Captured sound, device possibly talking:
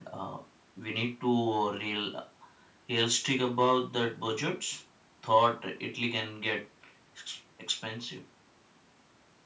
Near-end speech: none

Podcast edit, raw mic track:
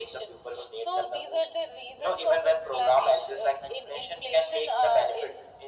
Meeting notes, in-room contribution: none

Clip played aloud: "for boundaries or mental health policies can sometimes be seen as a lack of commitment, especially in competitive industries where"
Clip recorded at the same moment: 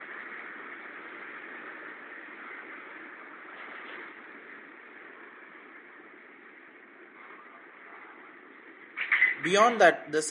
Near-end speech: present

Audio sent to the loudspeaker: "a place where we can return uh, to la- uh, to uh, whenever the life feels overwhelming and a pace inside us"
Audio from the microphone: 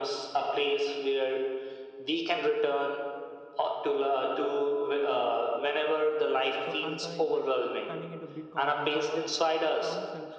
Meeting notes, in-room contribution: present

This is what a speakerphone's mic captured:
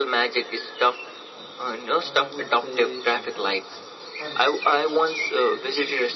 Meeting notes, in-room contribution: present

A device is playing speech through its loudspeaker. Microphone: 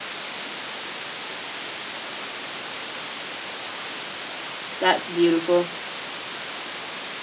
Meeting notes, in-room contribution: present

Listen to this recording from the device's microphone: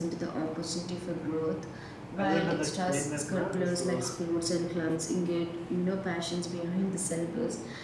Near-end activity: present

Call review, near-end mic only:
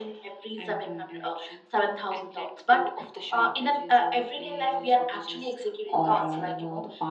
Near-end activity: none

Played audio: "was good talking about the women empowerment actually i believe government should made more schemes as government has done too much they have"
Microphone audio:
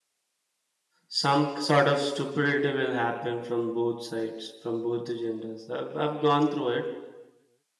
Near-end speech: present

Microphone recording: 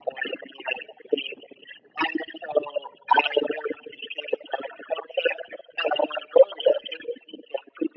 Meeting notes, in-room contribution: none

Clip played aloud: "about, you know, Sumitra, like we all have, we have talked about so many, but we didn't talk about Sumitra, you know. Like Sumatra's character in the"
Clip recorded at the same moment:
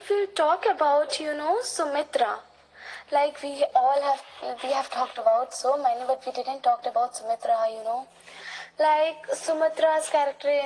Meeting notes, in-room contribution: none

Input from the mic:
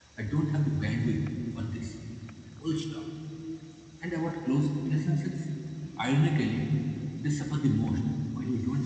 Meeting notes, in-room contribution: present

